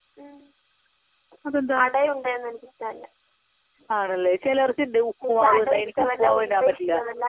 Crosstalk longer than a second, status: present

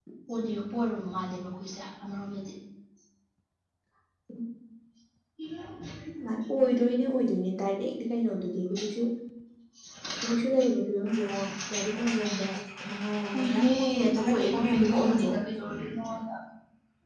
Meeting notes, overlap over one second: present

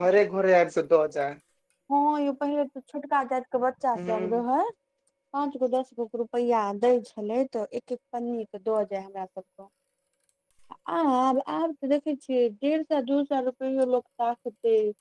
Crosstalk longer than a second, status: none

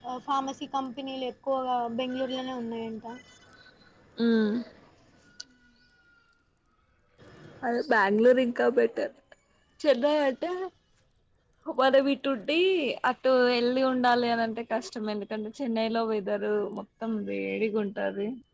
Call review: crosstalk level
none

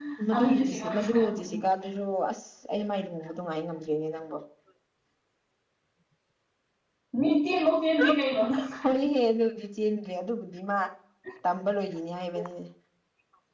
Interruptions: present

